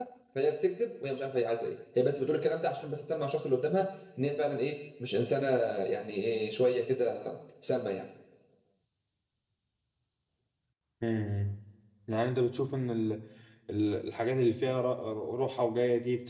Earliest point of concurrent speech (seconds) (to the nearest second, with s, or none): none